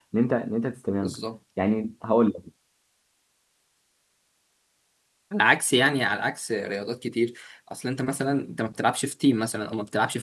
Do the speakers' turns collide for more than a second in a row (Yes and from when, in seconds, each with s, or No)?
No